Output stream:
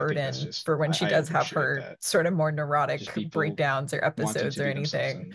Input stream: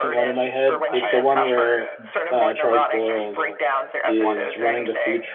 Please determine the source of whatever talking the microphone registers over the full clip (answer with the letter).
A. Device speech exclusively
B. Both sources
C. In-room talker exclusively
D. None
B